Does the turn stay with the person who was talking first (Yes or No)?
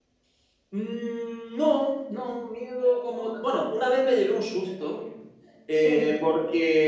Yes